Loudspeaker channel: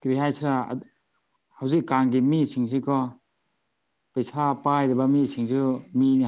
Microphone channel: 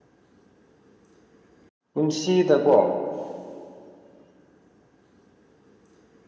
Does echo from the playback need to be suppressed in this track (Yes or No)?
No